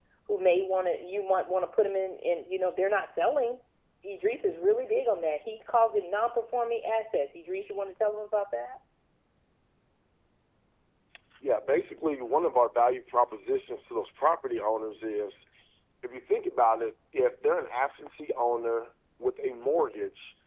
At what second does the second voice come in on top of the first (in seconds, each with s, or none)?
none